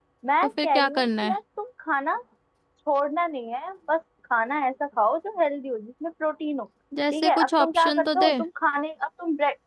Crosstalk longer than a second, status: present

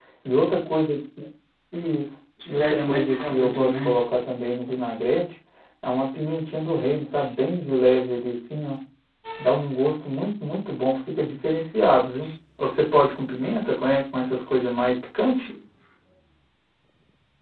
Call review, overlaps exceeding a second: present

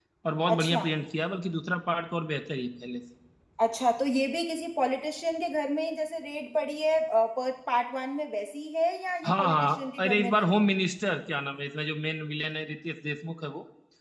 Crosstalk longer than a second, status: present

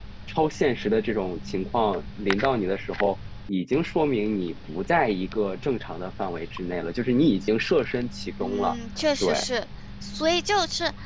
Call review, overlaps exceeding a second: none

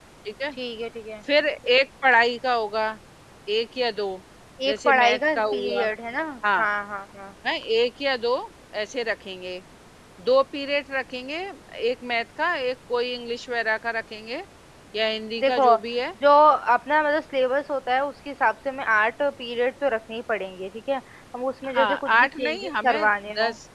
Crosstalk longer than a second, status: present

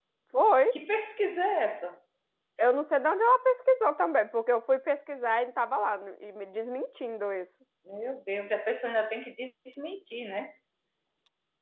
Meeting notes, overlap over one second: none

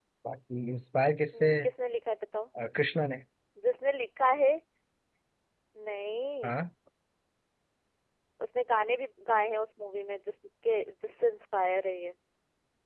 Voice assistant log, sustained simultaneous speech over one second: none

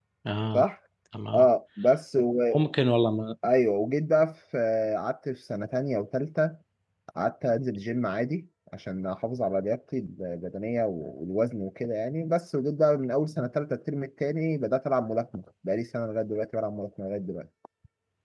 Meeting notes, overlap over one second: none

